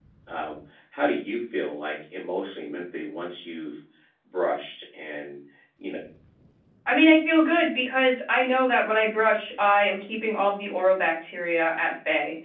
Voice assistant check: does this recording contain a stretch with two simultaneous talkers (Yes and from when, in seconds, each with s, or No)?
No